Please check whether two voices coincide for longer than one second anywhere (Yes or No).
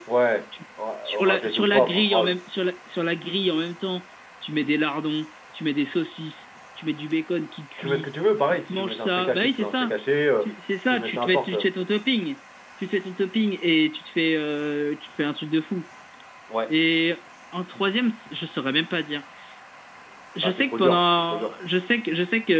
Yes